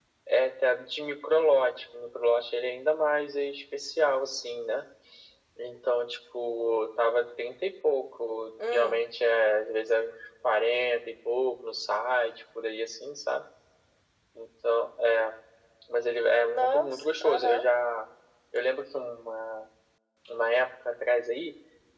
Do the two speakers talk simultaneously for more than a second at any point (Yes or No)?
Yes